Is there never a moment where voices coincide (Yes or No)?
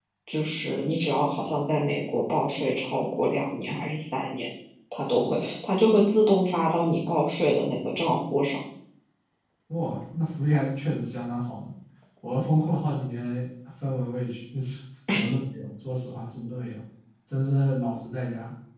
Yes